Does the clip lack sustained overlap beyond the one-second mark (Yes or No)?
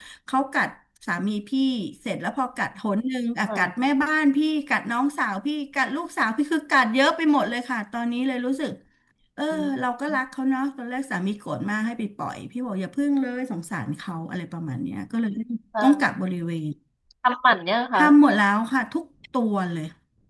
Yes